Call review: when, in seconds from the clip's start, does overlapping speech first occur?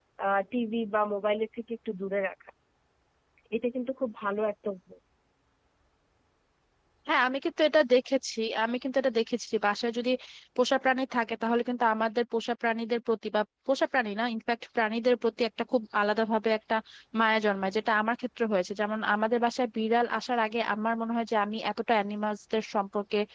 none

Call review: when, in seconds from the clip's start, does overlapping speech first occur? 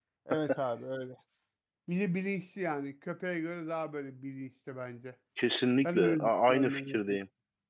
6 s

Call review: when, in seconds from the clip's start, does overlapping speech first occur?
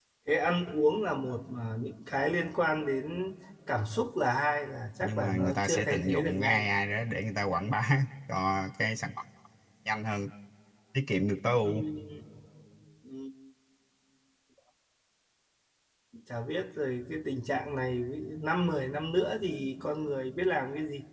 5 s

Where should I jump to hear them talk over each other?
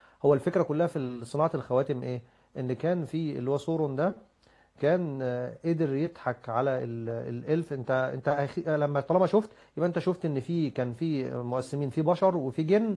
none

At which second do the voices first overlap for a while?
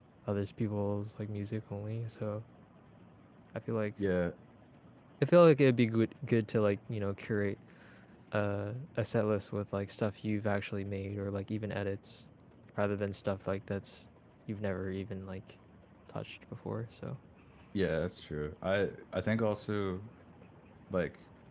none

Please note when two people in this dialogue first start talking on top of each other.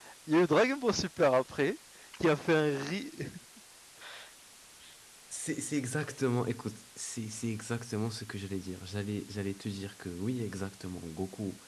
none

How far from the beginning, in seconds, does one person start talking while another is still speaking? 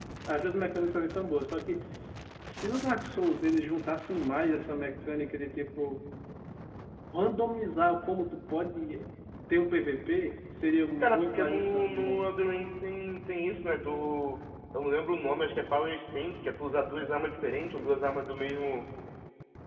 11 s

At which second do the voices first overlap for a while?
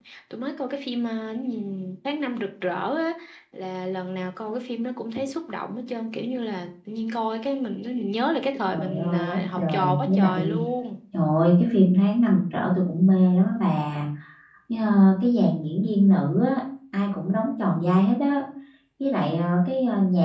9 s

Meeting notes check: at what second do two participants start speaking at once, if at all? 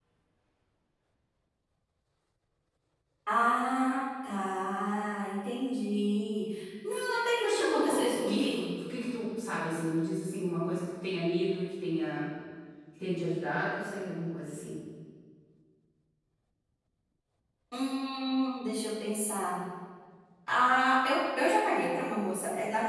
7 s

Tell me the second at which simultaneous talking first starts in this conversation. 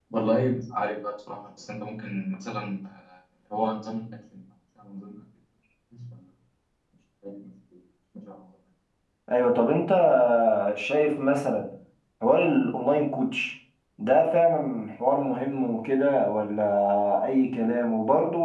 none

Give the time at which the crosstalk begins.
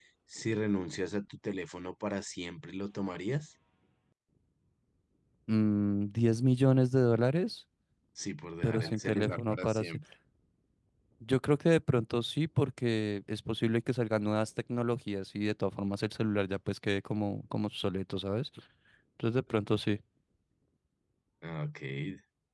9 s

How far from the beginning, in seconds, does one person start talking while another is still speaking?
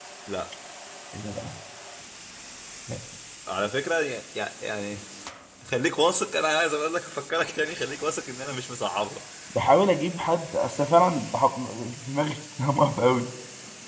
none

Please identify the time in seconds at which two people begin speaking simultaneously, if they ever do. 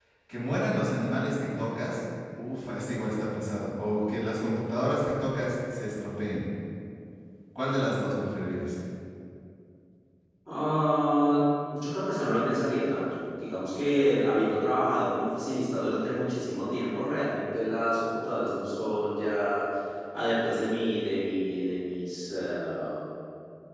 none

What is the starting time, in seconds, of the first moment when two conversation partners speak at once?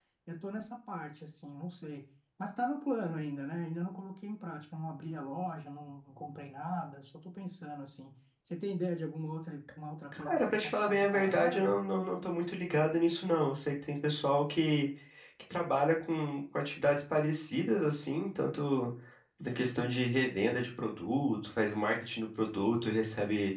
10 s

